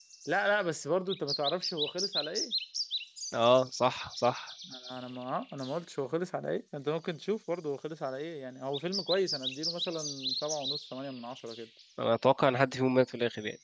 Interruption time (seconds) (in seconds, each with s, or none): none